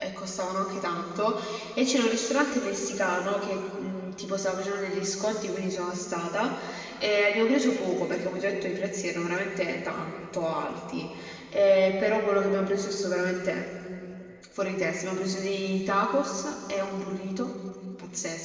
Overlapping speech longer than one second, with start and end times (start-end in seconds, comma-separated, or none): none